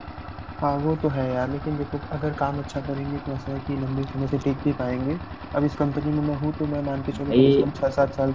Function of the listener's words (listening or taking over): listening